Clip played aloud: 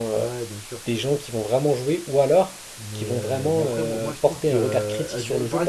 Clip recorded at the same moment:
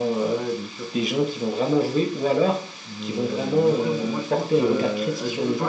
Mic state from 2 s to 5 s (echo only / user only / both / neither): echo only